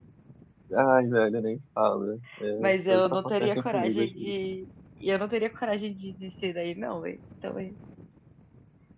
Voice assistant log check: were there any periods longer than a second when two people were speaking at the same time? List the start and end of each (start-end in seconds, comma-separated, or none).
2.6-4.3